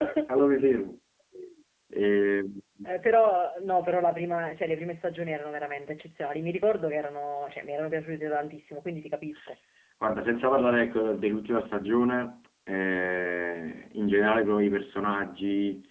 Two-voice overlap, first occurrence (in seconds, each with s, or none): none